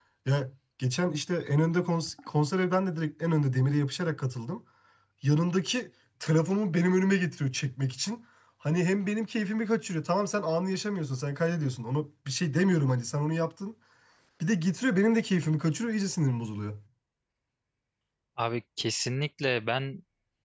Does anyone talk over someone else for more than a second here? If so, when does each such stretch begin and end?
none

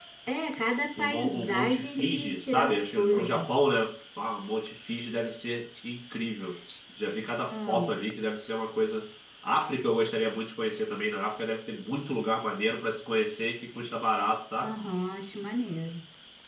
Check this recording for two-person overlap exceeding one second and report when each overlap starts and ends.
1.0-3.5

